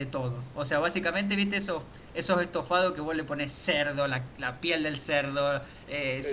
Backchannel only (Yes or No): Yes